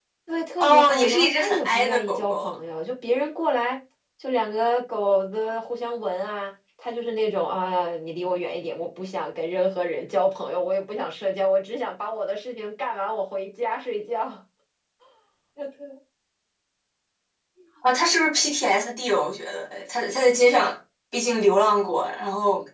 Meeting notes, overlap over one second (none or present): present